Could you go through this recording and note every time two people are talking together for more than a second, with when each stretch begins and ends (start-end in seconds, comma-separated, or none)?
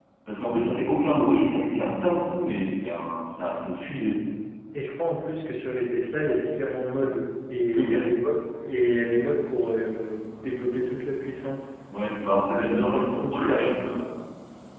12.5-14.0